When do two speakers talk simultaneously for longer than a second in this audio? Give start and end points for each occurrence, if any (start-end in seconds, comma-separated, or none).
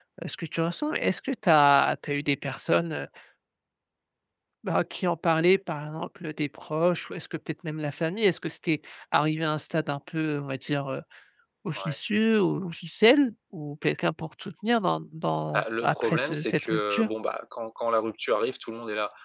15.5-17.1